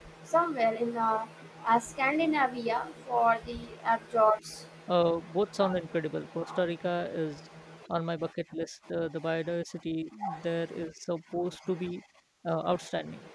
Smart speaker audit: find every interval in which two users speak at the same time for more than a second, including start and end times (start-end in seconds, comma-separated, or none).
none